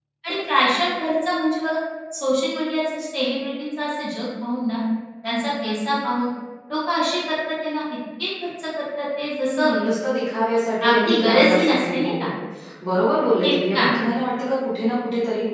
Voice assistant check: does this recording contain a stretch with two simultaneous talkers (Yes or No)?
Yes